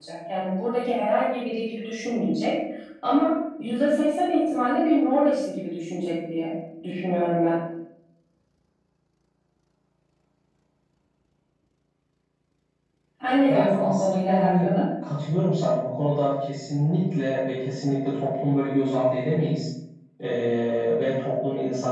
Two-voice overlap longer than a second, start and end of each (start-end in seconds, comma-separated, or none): 13.5-14.7